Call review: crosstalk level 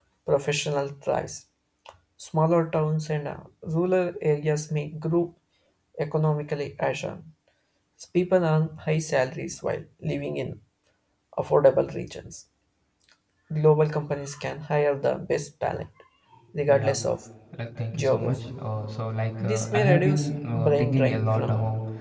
present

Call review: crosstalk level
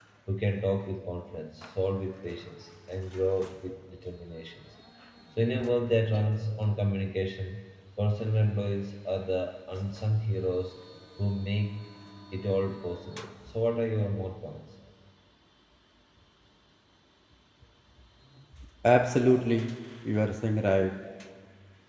none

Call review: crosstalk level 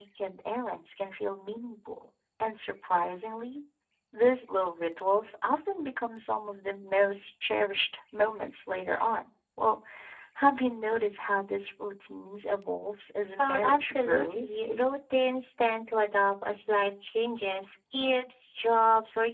present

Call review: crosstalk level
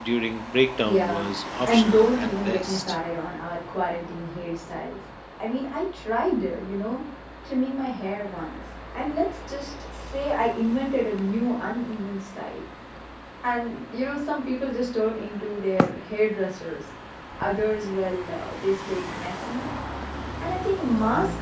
present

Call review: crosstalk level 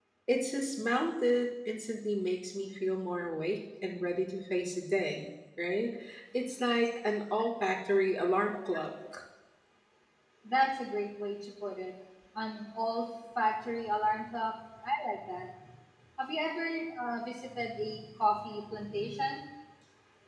none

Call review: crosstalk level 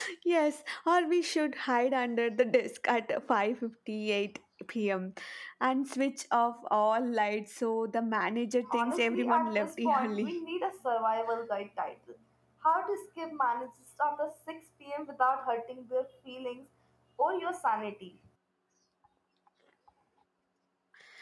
present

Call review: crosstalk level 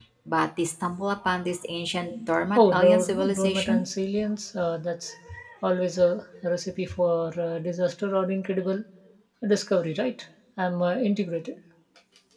present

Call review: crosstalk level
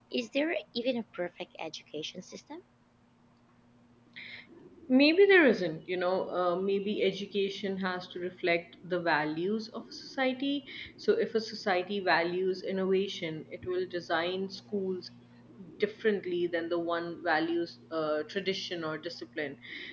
none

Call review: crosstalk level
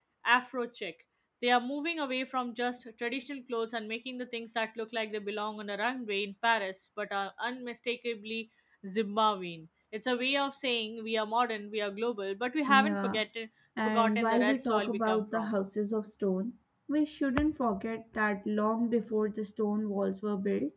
present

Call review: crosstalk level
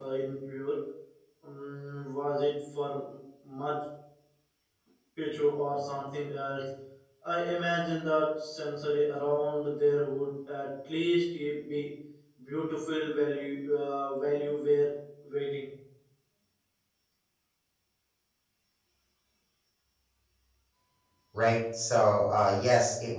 none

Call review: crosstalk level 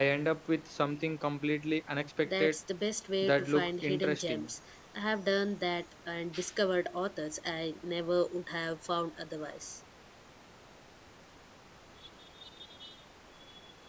present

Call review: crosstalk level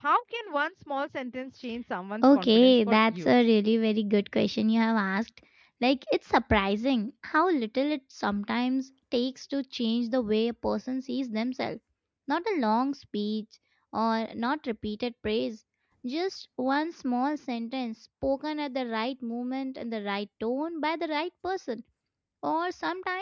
present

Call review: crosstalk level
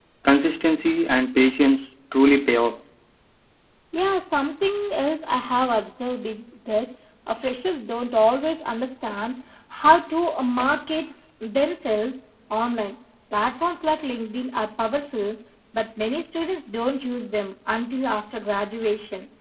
none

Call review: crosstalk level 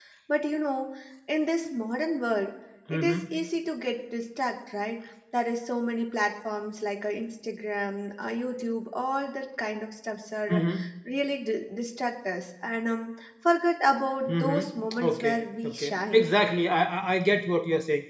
present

